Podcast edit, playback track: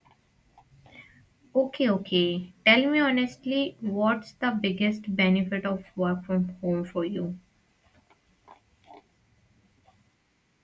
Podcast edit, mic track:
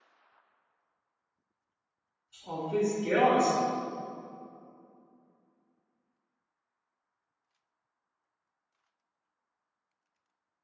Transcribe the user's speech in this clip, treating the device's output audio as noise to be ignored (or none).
office chaos